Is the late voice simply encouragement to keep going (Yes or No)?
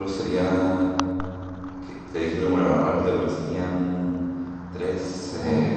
No